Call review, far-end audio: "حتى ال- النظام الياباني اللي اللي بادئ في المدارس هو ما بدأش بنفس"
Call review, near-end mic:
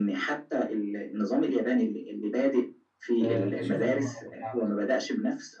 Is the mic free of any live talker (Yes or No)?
No